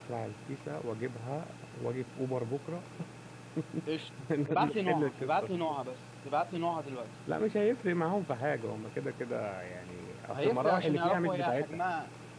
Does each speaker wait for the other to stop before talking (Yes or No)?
No